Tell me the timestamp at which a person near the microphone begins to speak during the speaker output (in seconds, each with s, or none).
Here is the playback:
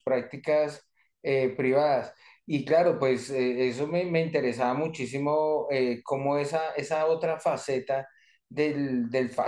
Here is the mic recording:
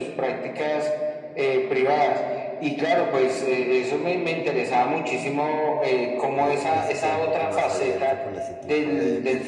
6.4 s